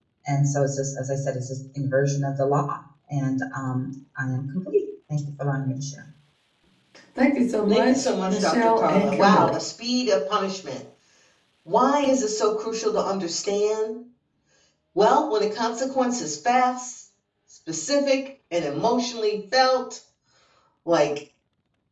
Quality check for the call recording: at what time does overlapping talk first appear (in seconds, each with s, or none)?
7.9 s